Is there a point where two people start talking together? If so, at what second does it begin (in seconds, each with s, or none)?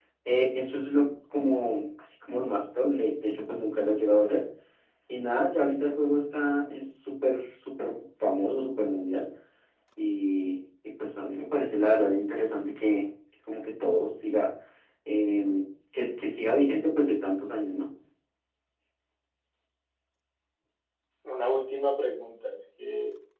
none